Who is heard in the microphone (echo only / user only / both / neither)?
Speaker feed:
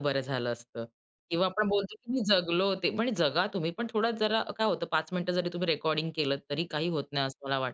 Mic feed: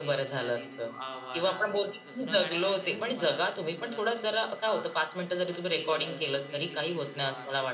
both